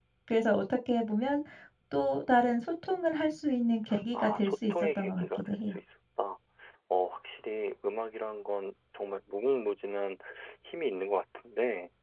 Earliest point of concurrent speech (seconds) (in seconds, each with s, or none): 4.1 s